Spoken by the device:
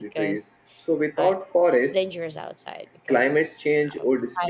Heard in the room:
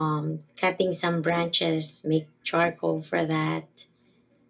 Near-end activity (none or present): present